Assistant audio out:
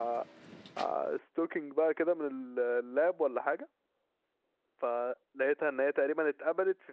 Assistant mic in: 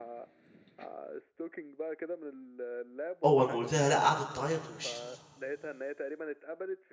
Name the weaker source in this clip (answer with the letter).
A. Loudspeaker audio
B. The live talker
A